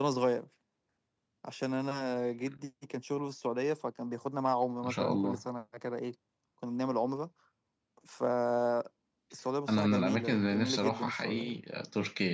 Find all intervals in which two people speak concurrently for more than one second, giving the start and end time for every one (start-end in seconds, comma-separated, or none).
9.7-11.6